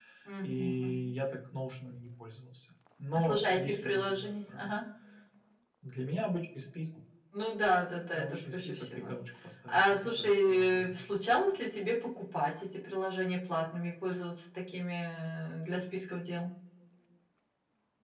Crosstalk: present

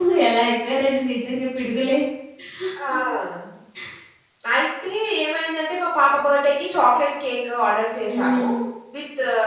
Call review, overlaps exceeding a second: none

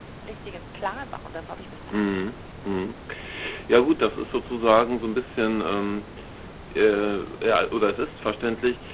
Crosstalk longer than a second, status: none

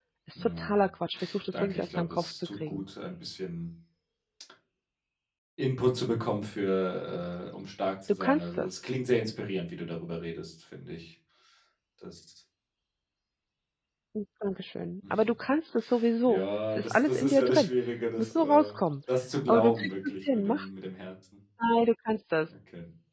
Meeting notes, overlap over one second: present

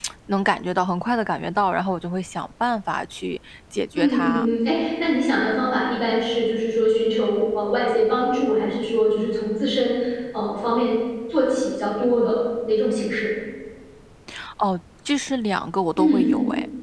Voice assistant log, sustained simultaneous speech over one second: none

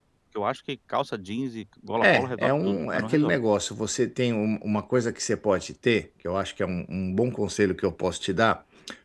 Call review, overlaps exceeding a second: present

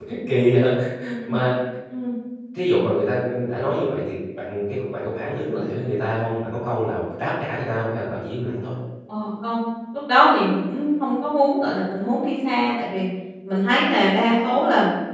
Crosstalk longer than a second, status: none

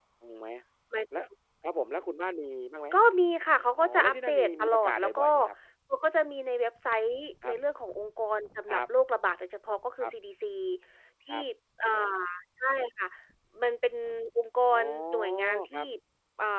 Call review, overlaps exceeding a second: present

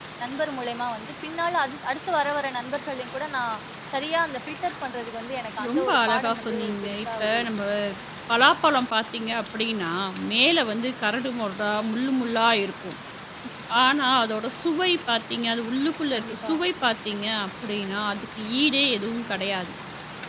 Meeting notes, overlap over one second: present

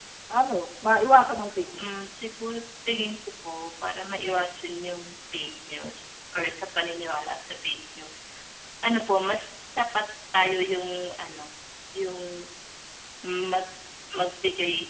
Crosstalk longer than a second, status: none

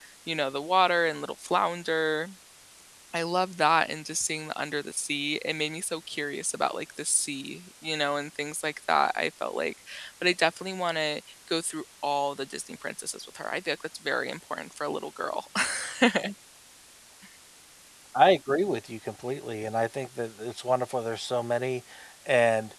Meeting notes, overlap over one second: none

